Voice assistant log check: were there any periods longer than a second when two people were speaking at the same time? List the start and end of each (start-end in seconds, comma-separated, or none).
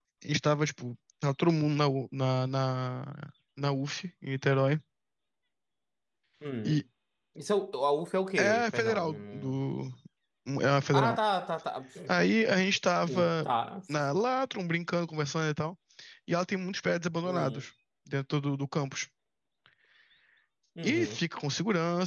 8.4-9.6